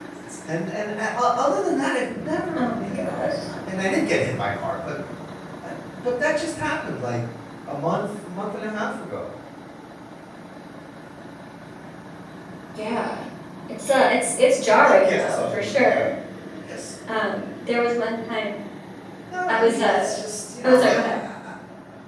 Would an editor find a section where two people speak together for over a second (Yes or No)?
Yes